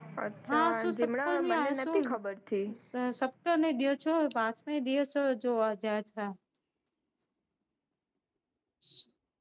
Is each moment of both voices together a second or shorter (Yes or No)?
No